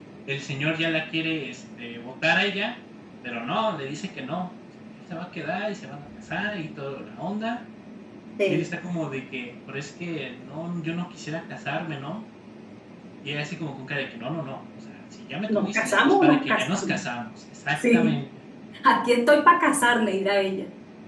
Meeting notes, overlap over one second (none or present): present